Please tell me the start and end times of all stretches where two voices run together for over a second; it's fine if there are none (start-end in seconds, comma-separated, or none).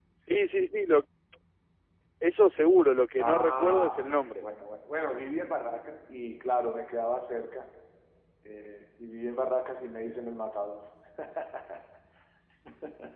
3.2-4.4